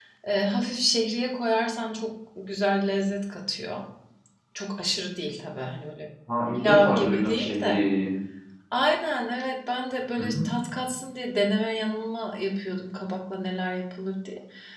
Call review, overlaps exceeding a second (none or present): present